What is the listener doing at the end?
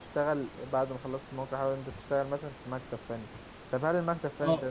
listening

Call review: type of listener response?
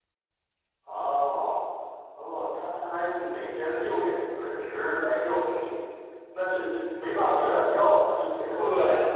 taking over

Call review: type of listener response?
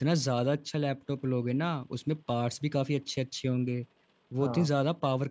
listening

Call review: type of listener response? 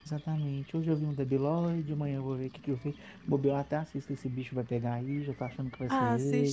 taking over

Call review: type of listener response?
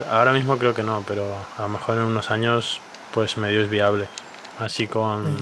listening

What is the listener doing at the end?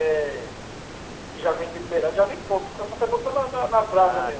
taking over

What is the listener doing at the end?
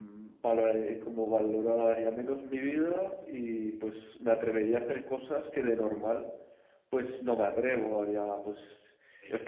listening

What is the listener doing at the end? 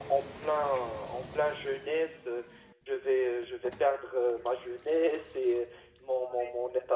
listening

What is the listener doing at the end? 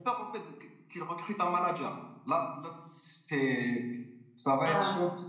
listening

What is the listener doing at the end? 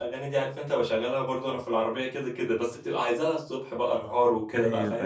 taking over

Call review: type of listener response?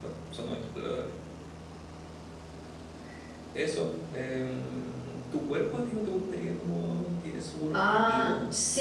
taking over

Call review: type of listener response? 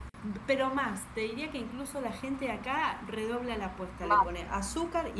listening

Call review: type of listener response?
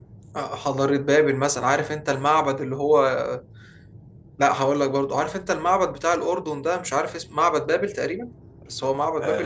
taking over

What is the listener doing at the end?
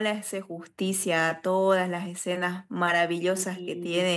listening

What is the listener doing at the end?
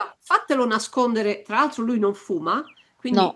listening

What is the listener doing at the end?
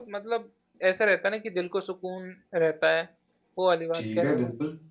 taking over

